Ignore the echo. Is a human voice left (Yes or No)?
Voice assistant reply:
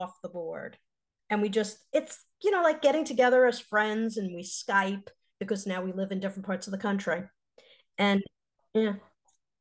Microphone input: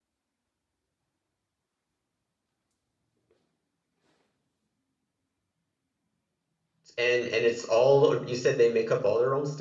Yes